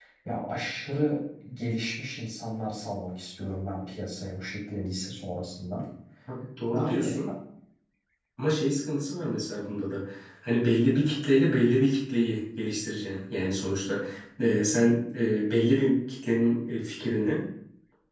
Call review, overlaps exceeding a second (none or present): none